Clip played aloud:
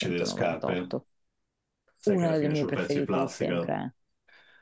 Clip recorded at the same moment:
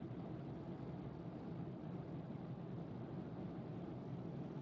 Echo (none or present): none